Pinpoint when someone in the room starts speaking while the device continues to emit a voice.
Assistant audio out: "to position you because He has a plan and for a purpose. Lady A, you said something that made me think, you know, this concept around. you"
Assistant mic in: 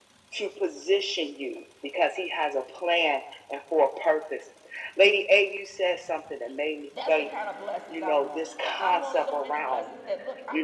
6.9 s

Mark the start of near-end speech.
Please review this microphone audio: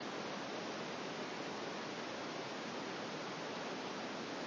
none

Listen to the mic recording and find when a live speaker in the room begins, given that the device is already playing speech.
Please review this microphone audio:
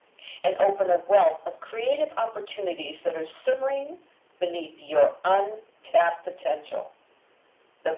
none

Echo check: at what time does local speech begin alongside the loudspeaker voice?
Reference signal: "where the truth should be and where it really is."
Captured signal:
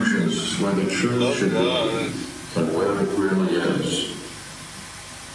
1.2 s

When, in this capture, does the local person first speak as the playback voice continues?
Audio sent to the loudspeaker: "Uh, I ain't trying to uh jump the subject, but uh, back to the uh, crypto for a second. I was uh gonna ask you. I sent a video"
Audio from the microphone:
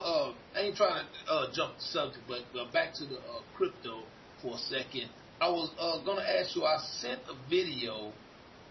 none

